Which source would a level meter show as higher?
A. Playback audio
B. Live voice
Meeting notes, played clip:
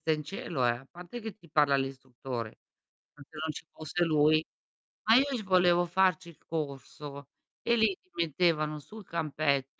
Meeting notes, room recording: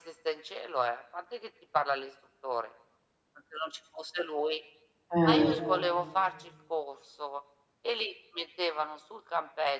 B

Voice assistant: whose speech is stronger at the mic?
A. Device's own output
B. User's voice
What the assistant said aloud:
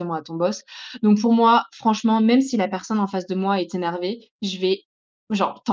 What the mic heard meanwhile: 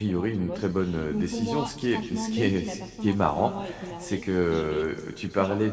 B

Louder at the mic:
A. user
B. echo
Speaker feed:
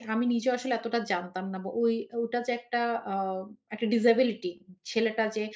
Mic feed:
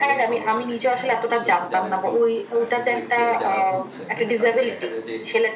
B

